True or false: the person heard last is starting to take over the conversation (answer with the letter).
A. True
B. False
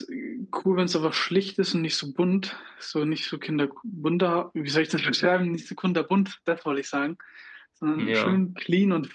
B